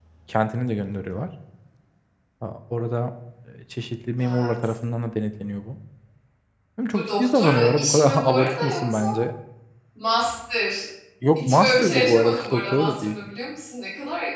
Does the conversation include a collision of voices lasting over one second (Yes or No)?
Yes